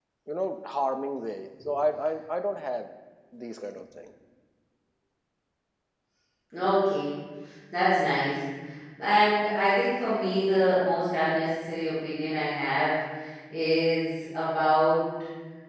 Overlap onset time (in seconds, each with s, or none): none